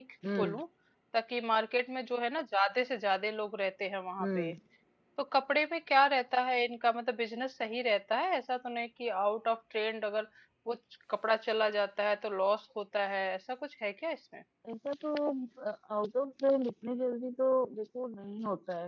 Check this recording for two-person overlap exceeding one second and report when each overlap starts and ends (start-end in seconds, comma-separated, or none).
none